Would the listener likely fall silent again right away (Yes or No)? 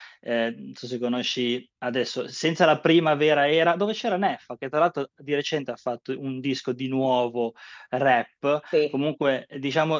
Yes